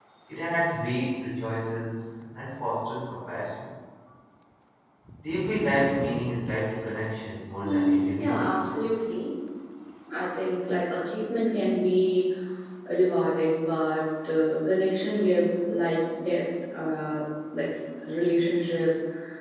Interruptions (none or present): present